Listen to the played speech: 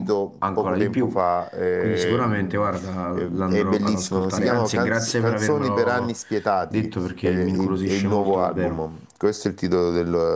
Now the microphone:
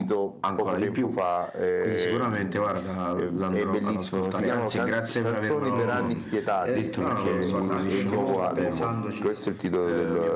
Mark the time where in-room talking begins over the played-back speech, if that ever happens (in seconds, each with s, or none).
5.8 s